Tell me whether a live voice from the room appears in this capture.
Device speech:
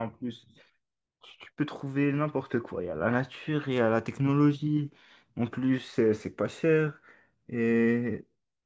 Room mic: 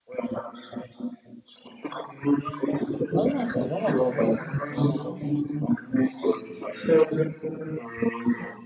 Yes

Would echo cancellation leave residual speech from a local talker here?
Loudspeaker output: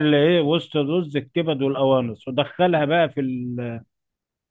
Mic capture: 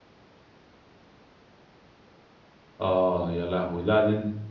Yes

